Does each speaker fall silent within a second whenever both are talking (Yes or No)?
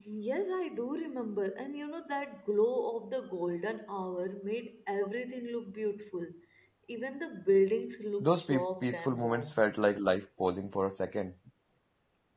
No